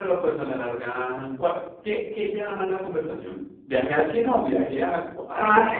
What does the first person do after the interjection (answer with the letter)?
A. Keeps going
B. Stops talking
B